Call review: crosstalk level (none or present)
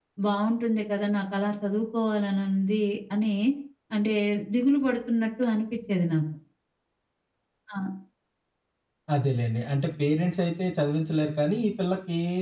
none